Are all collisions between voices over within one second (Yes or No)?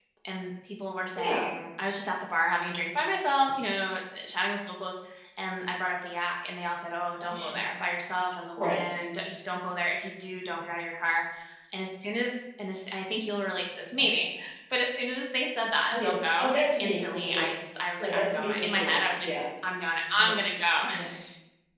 No